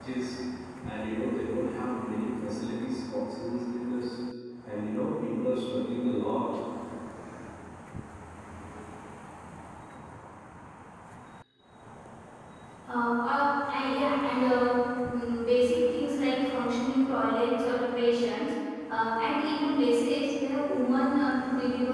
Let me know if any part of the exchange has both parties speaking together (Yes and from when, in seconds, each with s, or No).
No